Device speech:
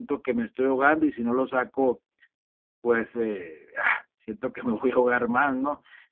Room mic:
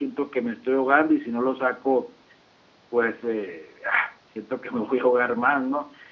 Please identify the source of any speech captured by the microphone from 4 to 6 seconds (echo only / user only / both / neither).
echo only